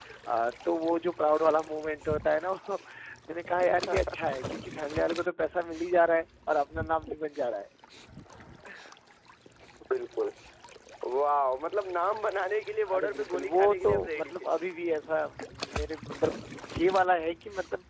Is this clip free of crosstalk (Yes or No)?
No